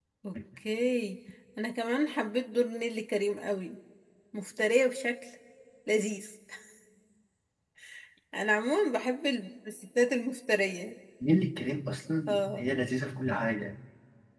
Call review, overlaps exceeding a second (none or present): none